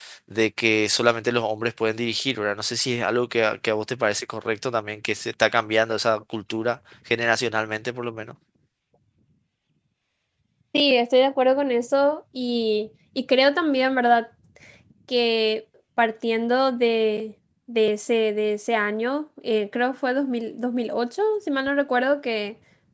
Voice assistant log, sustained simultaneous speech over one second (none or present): none